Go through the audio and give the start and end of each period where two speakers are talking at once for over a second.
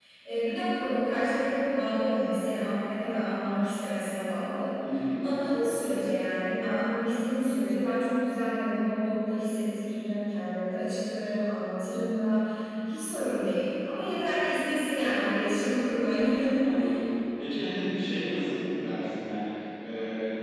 none

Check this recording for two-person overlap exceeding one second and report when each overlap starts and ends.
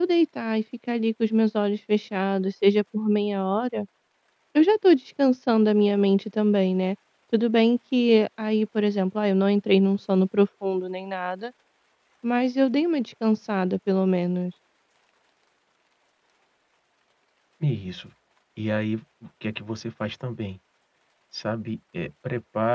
none

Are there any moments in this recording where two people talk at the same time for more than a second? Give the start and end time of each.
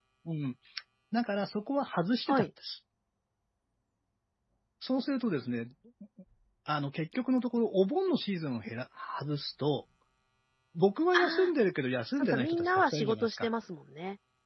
12.2-13.5

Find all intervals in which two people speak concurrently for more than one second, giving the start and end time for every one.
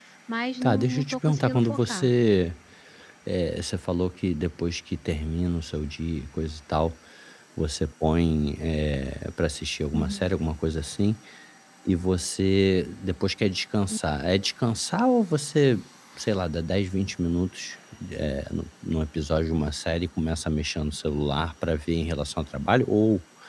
0.6-2.1

